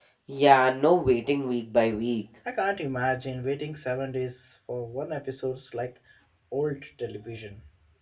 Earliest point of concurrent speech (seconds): none

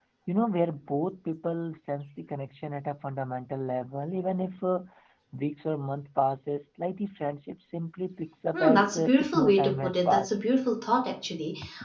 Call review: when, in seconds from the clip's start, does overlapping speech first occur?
8.5 s

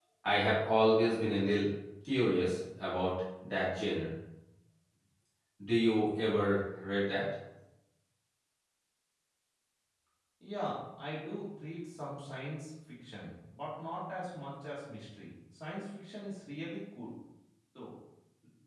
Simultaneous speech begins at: none

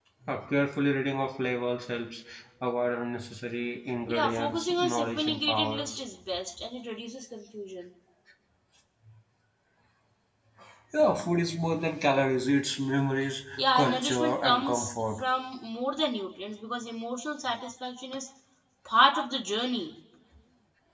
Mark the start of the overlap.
4.1 s

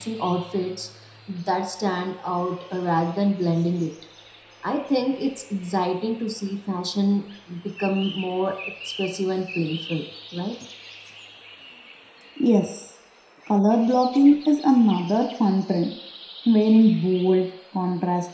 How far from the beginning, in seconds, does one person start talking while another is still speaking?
none

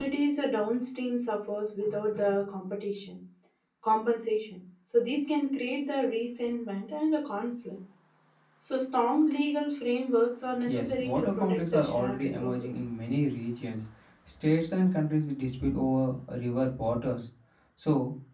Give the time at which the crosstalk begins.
10.7 s

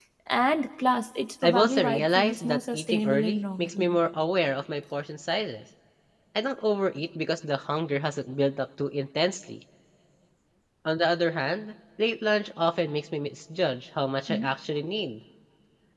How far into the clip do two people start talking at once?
1.4 s

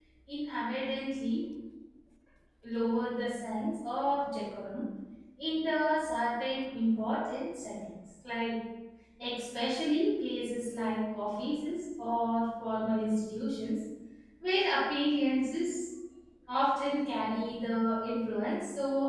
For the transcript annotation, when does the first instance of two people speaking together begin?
none

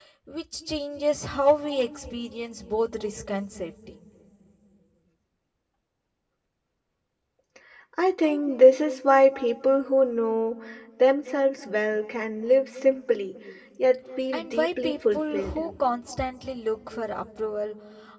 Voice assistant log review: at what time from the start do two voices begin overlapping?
14.3 s

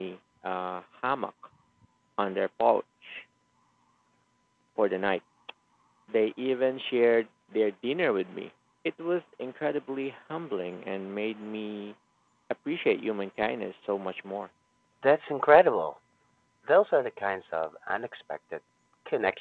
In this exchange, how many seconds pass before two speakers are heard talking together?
none

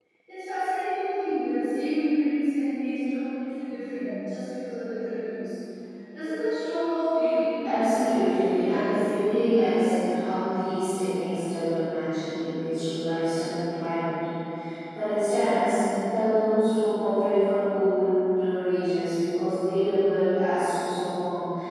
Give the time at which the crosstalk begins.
7.6 s

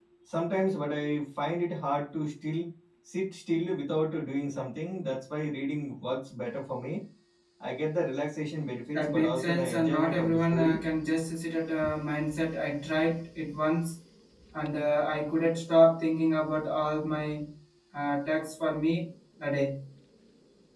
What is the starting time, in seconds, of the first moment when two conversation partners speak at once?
8.9 s

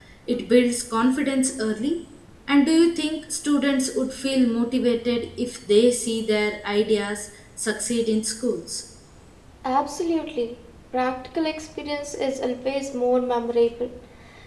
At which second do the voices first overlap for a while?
none

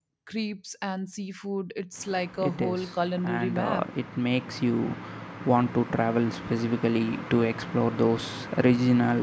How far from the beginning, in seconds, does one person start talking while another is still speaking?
2.4 s

